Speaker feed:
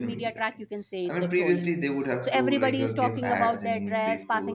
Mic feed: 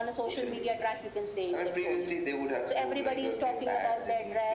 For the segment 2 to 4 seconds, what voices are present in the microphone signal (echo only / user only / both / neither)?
echo only